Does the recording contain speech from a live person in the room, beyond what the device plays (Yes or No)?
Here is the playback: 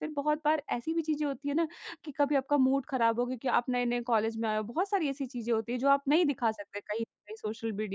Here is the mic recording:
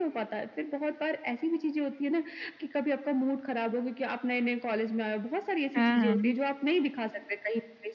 Yes